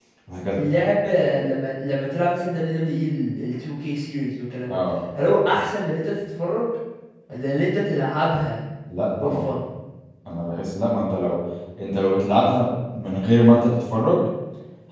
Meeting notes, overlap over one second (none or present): none